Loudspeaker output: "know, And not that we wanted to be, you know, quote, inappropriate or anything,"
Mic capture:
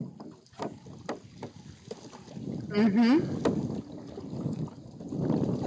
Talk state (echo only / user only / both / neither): user only